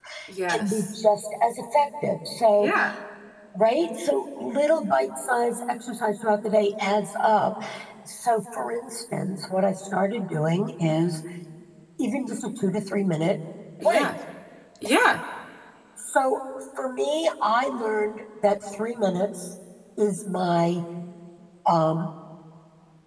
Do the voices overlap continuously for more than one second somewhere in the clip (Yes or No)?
No